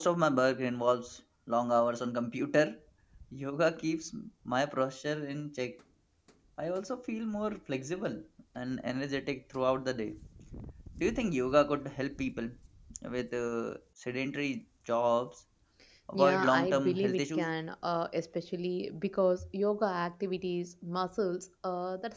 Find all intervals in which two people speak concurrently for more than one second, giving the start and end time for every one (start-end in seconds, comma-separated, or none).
16.1-17.5